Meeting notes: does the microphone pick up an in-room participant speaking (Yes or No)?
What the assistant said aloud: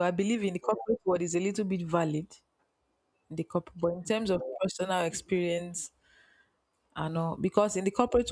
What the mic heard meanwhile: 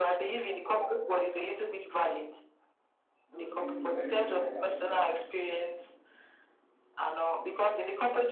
Yes